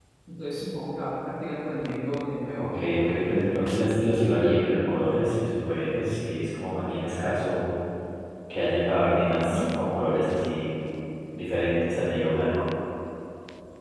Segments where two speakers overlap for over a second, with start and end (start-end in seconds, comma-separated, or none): none